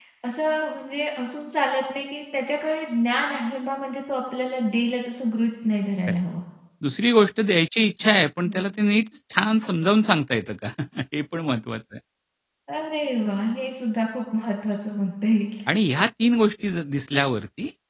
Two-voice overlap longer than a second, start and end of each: none

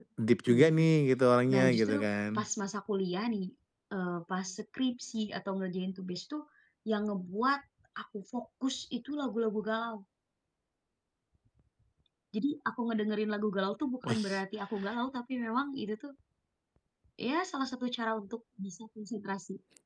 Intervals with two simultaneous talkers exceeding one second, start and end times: none

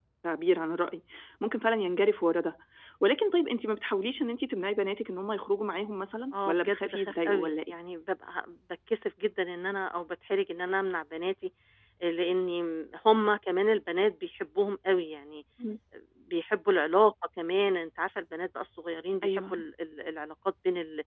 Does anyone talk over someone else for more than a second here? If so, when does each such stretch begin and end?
6.5-7.8

